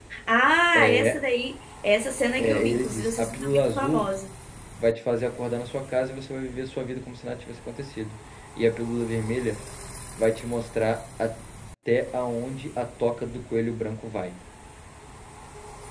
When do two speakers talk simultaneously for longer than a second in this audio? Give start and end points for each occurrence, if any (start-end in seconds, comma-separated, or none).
2.4-4.1